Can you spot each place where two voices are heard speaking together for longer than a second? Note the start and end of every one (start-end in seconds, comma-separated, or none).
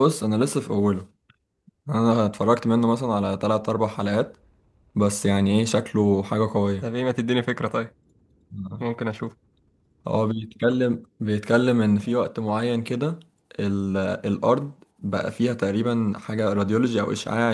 none